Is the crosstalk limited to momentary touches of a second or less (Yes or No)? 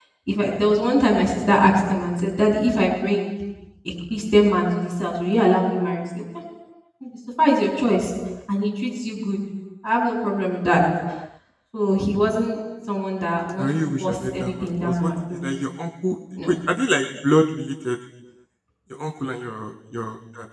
No